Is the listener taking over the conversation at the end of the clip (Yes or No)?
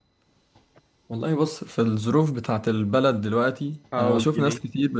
No